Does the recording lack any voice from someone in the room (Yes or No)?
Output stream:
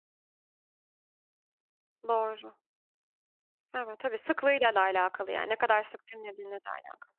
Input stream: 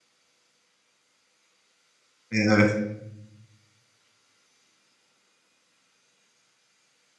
No